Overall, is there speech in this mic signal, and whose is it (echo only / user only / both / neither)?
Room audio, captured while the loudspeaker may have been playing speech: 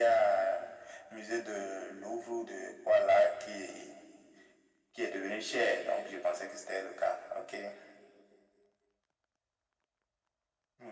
echo only